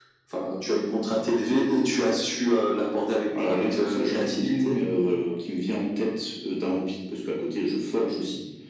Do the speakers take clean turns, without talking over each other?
No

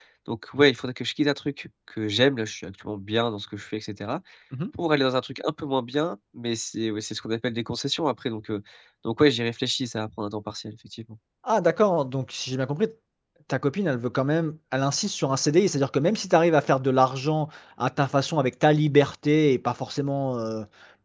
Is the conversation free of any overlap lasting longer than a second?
Yes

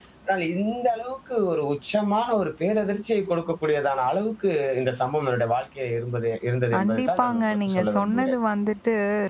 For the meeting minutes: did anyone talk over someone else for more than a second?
Yes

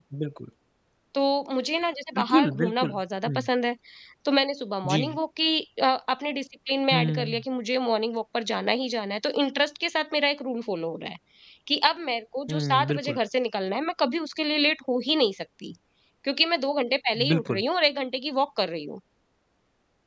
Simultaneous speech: Yes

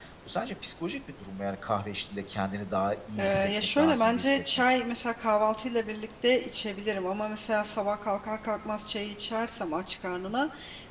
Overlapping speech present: Yes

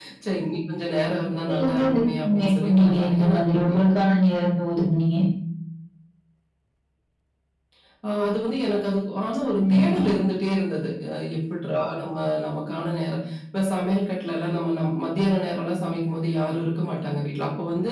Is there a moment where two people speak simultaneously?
Yes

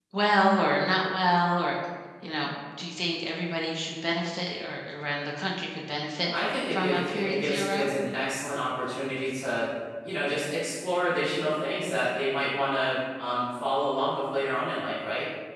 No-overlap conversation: No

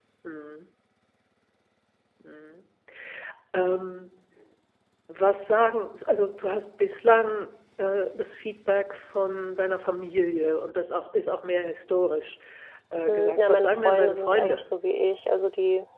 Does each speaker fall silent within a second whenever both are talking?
No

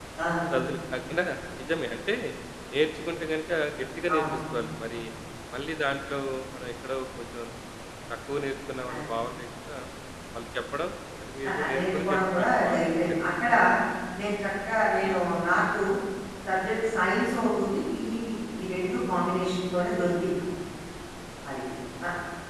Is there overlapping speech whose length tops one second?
Yes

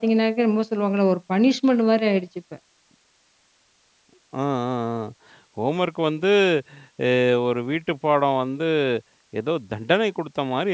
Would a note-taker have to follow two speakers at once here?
No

